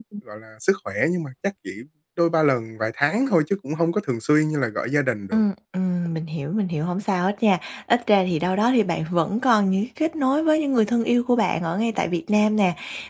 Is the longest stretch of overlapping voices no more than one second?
Yes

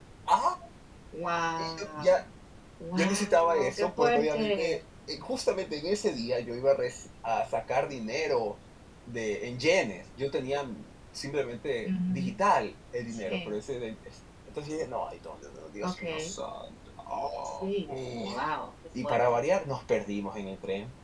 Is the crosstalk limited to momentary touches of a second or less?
No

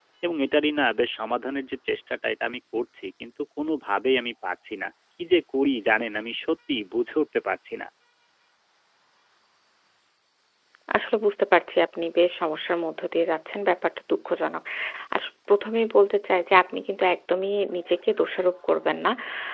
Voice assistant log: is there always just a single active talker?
Yes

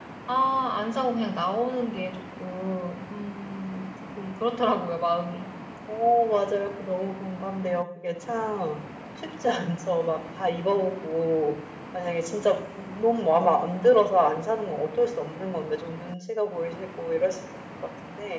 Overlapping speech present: No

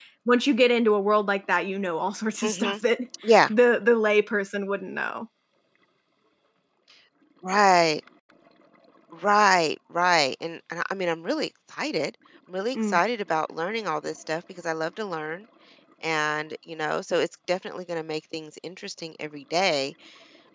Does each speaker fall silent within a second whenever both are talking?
Yes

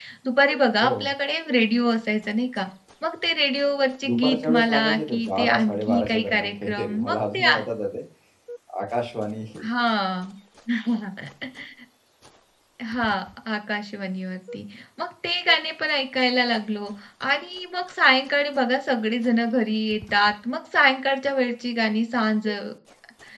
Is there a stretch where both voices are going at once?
Yes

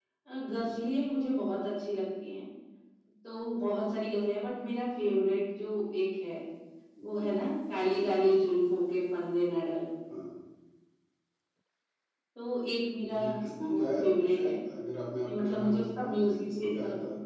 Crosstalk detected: Yes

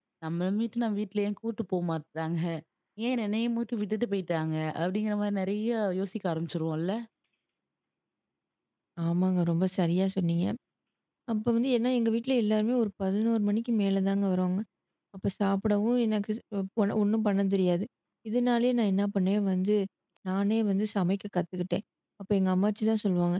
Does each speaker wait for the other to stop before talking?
Yes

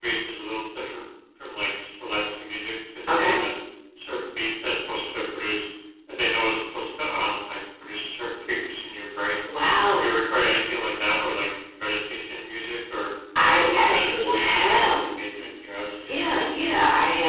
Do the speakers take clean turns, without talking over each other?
No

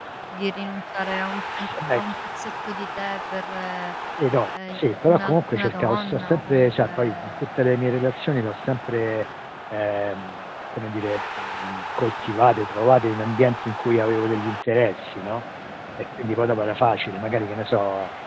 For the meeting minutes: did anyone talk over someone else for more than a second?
Yes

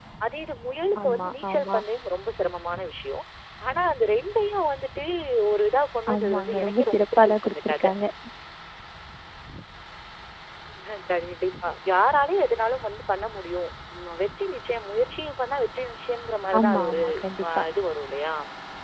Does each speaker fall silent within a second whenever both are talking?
No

